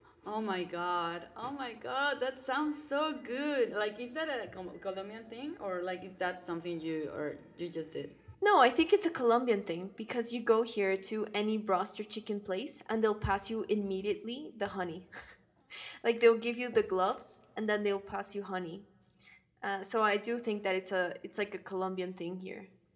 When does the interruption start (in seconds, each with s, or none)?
none